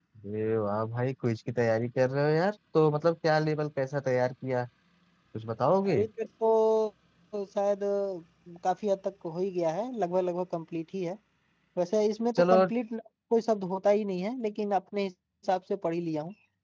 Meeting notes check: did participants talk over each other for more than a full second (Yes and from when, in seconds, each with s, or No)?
No